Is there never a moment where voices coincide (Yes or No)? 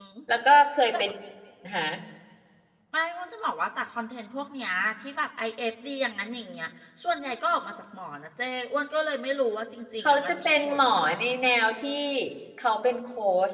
No